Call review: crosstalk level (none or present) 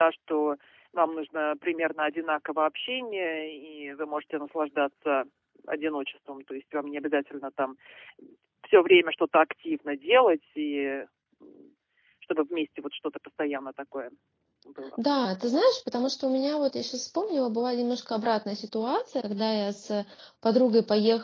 none